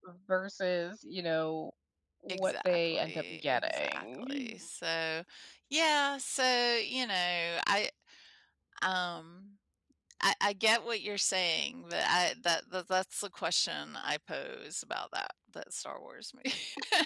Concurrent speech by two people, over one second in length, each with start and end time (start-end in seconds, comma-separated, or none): 2.3-4.5